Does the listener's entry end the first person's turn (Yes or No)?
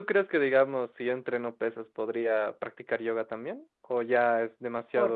Yes